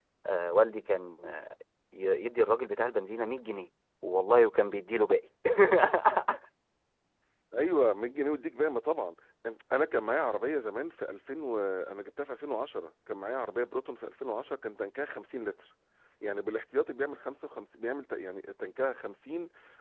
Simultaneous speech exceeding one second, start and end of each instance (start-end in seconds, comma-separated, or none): none